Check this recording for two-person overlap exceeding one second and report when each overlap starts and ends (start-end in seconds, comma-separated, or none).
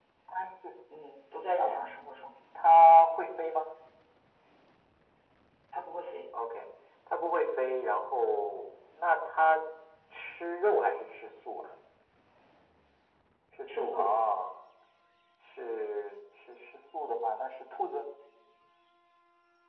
none